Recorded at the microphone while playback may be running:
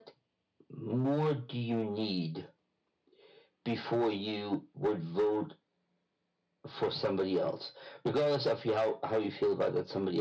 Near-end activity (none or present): none